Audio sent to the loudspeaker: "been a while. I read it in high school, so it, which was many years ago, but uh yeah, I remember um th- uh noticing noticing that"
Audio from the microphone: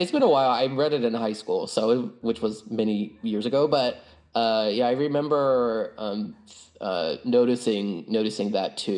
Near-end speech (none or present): none